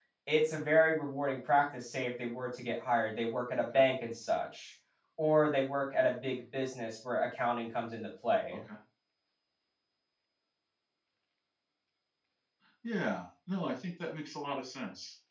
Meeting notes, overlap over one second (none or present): none